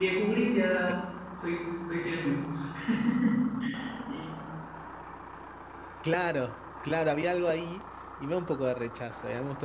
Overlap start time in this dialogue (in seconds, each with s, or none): none